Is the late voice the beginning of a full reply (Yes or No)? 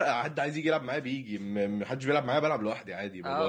Yes